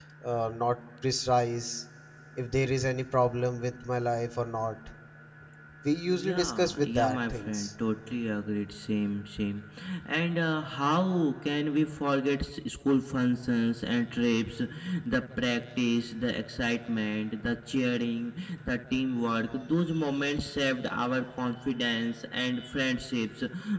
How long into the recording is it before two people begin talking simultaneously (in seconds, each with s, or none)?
6.1 s